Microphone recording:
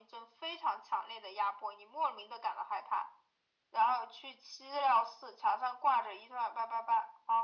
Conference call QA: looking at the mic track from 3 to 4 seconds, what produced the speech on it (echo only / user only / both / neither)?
echo only